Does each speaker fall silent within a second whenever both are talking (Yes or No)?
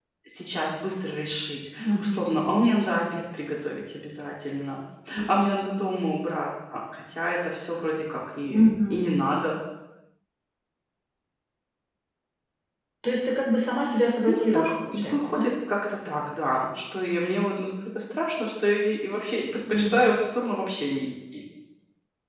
No